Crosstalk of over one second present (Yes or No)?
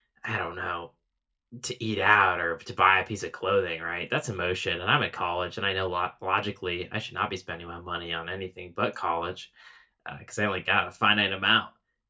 No